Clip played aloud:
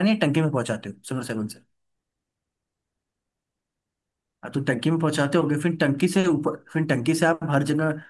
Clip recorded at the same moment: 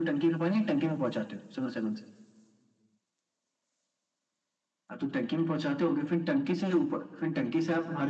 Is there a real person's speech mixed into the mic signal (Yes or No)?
No